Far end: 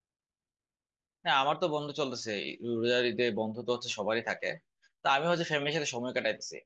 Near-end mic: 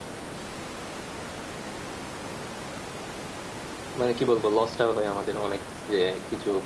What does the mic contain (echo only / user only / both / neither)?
user only